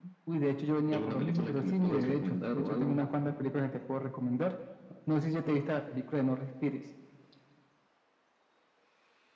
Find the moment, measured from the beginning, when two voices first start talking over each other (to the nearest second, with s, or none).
1 s